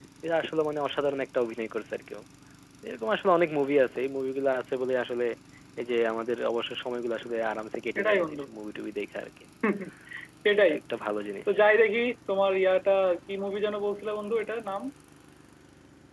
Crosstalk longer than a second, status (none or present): none